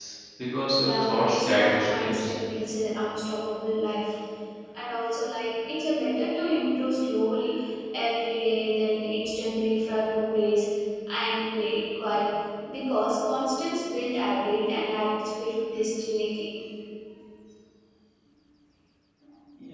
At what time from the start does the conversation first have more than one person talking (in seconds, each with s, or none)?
0.8 s